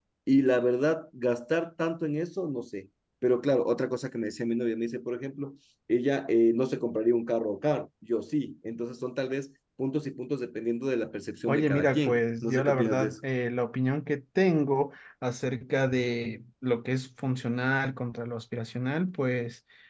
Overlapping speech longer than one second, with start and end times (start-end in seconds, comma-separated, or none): 11.5-13.2